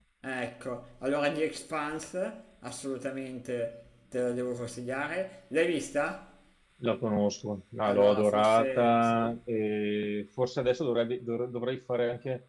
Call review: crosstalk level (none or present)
present